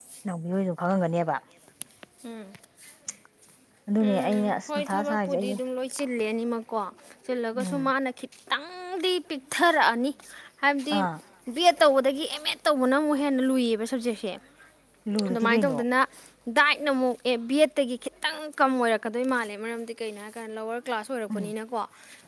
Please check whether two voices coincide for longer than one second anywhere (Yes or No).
Yes